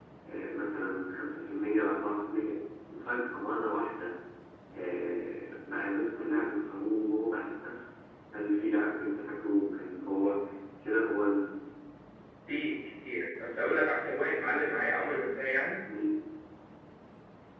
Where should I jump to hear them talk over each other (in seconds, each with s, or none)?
none